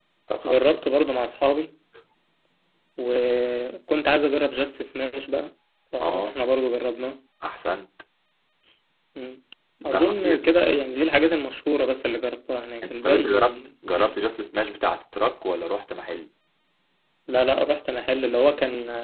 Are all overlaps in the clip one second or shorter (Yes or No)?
No